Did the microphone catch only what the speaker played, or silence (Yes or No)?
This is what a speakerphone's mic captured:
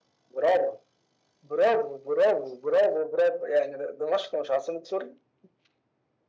Yes